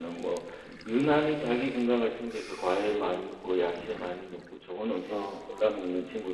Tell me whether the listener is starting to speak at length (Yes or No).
No